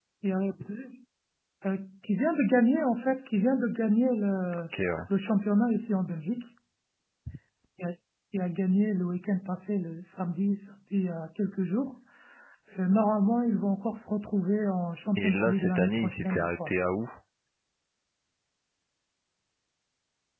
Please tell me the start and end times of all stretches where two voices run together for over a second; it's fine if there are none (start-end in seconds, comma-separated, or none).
15.2-16.7